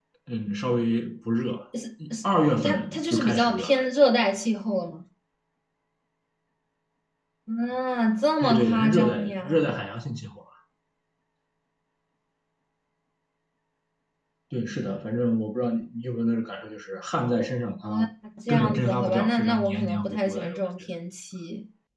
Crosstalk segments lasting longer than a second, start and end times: 2.6-3.9, 8.4-9.8, 18.5-20.6

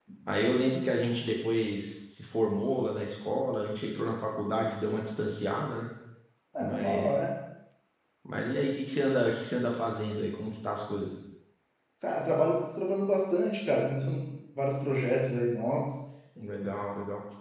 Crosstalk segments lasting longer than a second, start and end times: none

